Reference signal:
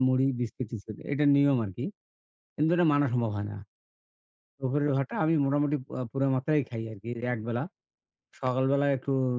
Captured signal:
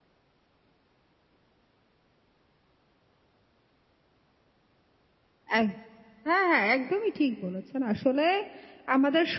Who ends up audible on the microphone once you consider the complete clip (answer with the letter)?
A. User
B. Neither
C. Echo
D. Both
A